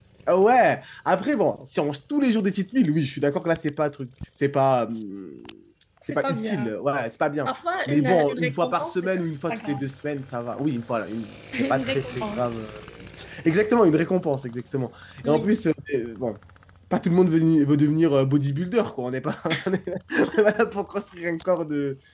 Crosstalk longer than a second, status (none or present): present